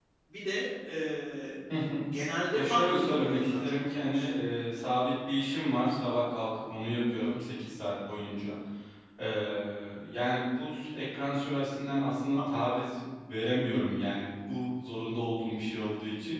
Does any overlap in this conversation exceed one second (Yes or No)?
Yes